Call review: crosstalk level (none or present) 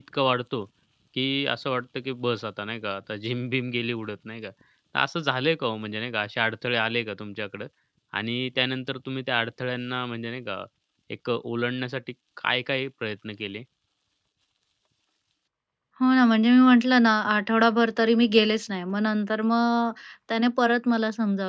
none